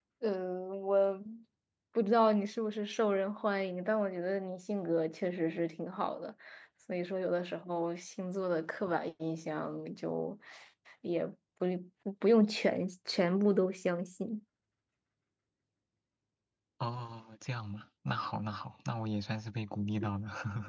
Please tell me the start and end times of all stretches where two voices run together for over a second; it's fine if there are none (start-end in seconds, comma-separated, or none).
none